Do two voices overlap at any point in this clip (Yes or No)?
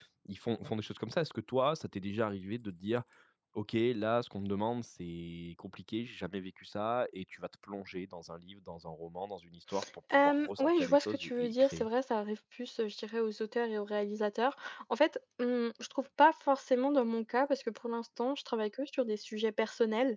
Yes